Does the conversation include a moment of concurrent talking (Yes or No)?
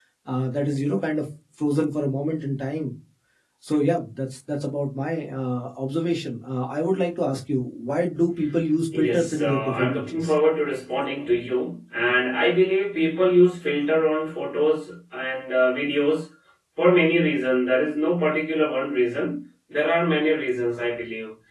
Yes